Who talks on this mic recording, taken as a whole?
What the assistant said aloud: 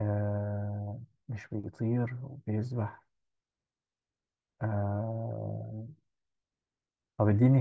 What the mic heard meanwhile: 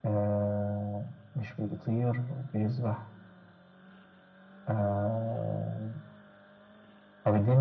echo only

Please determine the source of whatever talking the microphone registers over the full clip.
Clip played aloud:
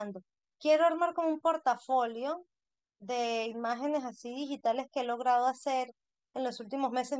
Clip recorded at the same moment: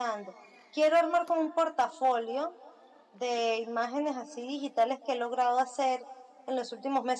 echo only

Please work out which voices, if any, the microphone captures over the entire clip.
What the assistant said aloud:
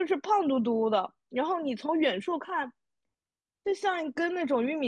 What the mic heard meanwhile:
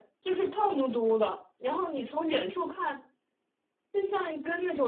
echo only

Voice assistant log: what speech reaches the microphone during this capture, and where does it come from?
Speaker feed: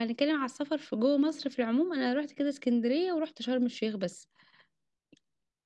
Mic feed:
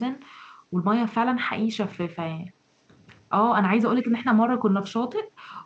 user only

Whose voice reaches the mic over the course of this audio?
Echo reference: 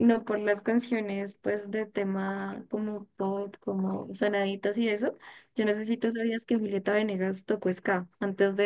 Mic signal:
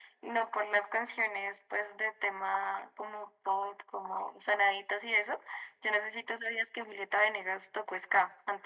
echo only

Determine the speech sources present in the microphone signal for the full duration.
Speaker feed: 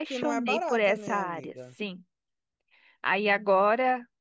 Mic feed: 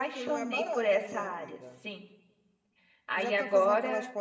both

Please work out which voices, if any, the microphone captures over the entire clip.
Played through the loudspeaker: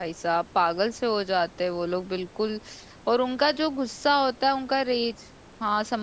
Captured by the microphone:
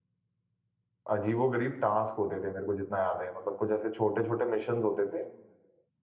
user only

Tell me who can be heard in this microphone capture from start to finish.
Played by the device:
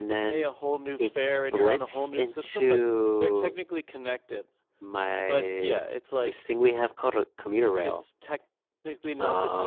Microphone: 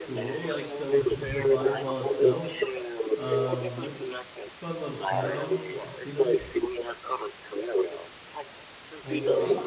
both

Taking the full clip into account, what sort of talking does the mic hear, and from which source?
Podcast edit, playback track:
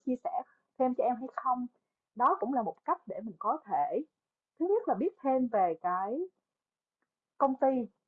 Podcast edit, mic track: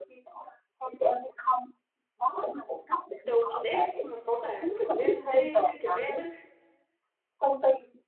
both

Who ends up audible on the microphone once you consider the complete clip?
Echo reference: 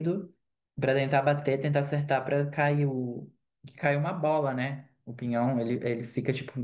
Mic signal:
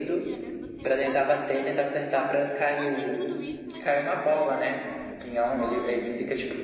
both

